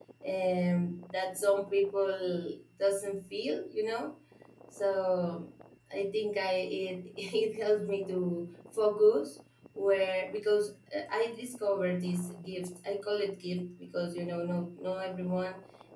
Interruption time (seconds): none

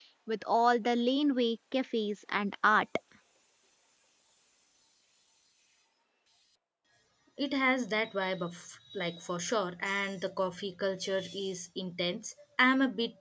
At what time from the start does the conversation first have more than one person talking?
none

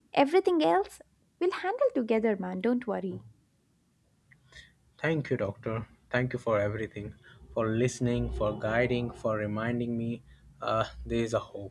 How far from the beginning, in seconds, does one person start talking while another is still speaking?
none

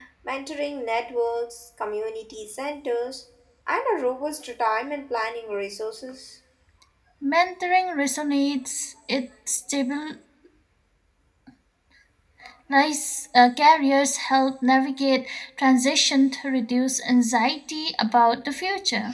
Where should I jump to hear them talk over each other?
none

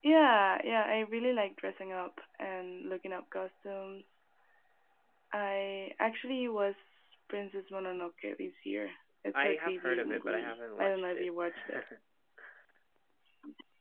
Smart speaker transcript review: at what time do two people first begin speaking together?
9.4 s

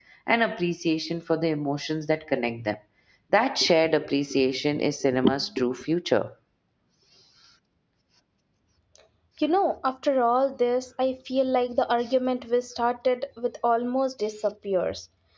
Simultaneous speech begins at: none

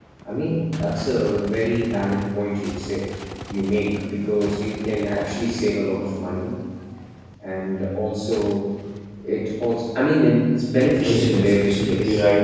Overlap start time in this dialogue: 10.9 s

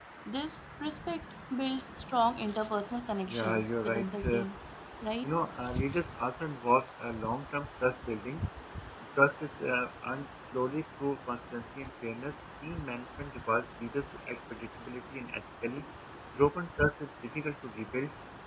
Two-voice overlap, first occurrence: 3.3 s

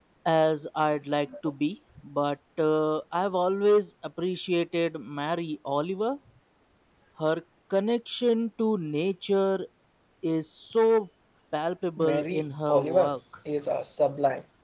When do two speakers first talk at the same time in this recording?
12.0 s

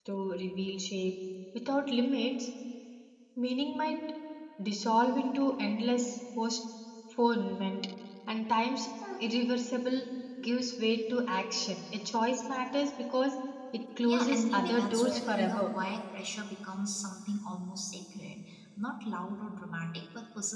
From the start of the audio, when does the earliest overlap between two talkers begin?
14.1 s

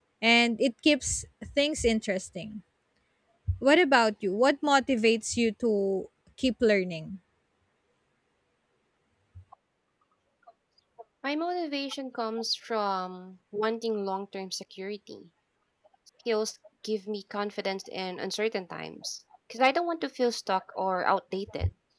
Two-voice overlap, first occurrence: none

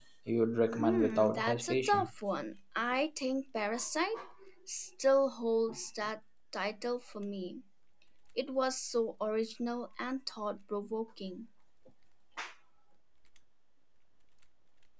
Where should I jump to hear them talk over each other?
0.8 s

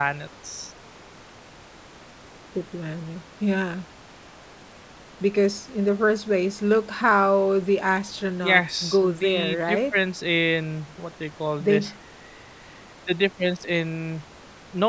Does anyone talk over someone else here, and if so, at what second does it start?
8.4 s

